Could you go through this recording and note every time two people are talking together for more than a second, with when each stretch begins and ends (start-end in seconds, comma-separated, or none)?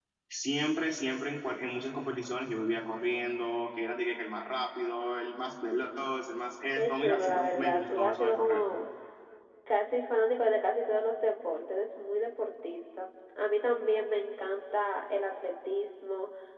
6.7-8.6